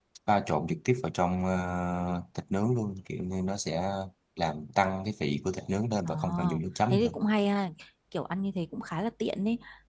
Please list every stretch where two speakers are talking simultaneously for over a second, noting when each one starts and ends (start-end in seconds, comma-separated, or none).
none